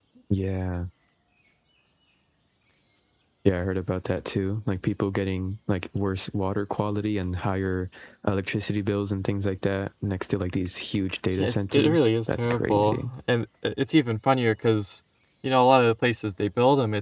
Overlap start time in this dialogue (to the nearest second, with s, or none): 11 s